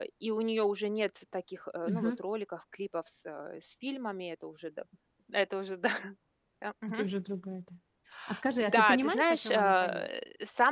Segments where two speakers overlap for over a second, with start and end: 8.6-10.1

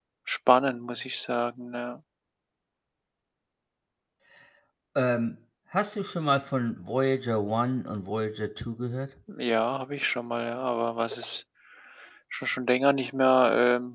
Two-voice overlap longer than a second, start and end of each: none

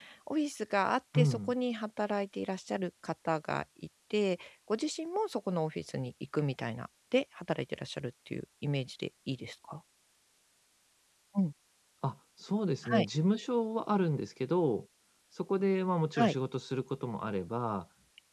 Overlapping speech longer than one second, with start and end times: none

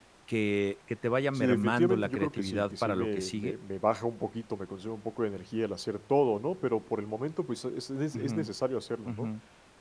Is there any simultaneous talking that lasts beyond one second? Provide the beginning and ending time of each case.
1.4-3.5

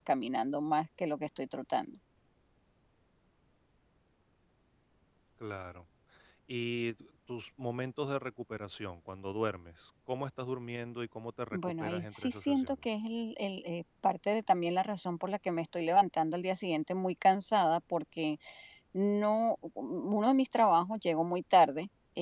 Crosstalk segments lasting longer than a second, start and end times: 11.5-12.8

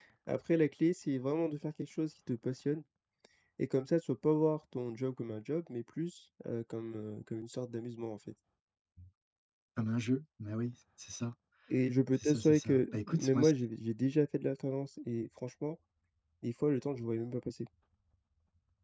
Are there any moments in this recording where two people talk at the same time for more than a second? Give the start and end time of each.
12.2-13.5

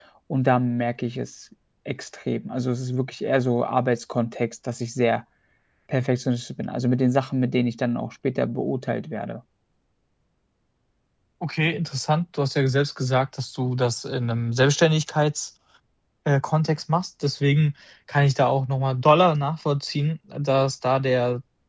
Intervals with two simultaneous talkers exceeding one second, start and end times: none

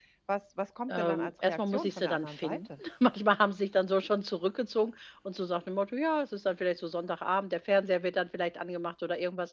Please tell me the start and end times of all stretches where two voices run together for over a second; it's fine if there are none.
0.9-2.7

